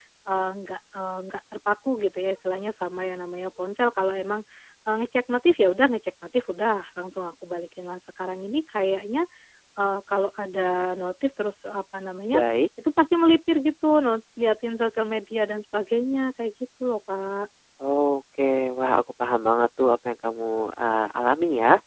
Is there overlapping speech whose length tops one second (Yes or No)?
No